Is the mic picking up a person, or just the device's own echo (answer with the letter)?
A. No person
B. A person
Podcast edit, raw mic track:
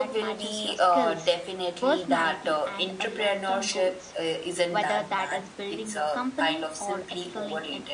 A